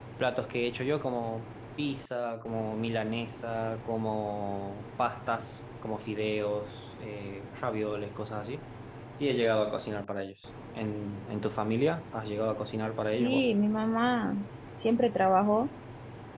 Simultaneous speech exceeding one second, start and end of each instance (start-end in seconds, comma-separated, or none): none